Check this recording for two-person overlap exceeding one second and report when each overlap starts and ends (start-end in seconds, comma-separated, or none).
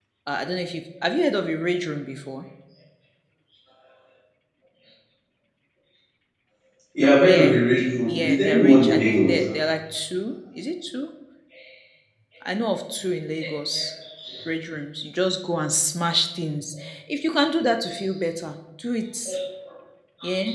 8.1-9.4